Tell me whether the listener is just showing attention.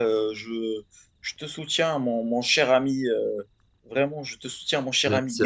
No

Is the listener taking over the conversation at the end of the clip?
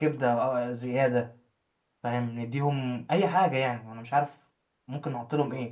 Yes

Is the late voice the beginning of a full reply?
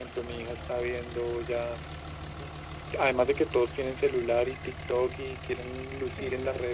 No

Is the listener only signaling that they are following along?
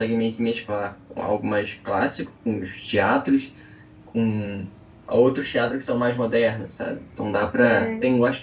Yes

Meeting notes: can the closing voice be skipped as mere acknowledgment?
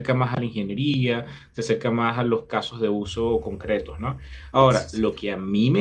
Yes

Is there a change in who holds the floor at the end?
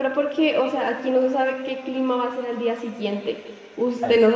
No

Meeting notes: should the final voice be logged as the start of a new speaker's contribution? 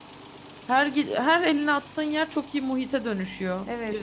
Yes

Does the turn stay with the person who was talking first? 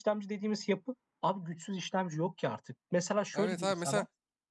No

